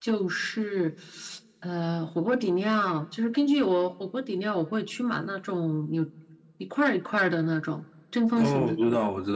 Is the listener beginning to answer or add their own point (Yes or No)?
Yes